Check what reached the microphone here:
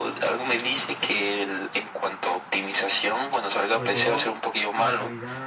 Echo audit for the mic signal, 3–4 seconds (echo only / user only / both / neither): both